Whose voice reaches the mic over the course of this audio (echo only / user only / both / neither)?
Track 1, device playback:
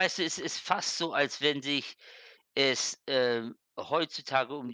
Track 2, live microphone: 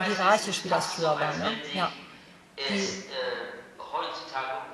both